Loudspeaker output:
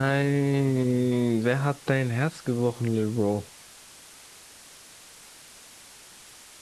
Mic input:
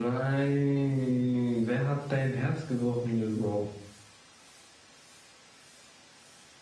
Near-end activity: none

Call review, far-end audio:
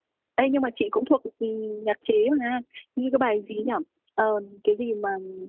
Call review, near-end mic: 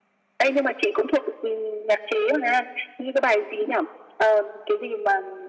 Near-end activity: none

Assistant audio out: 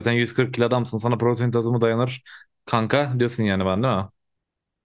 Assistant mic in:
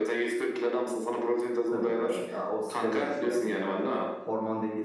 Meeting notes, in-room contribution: present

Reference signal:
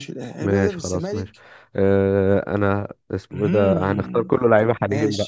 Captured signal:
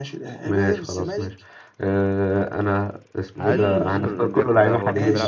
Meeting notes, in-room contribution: present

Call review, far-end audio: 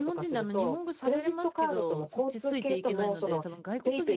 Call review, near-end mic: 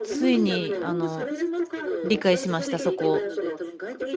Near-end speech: present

